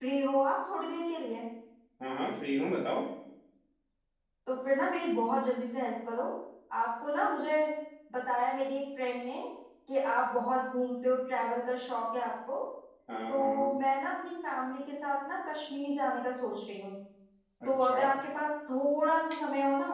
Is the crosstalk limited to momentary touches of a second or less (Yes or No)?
Yes